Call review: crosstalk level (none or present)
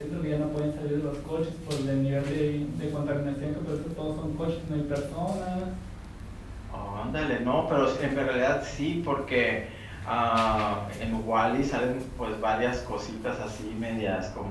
none